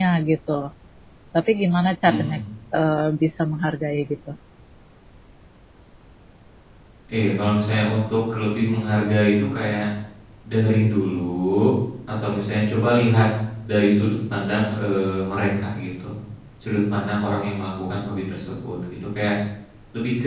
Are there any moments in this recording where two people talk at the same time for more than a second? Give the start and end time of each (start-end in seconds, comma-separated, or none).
none